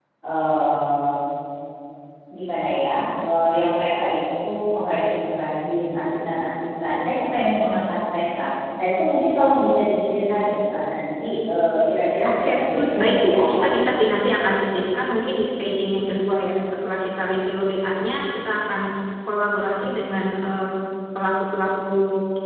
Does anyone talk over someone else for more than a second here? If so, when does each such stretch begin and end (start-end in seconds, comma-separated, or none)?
12.3-13.7